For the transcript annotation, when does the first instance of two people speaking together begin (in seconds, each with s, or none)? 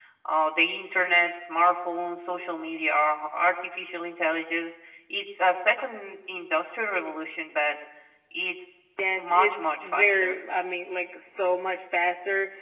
9.2 s